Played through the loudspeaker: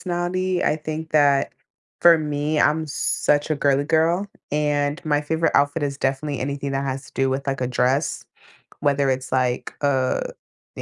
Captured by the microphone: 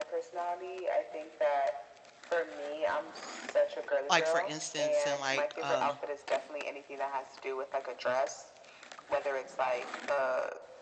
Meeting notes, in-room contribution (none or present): present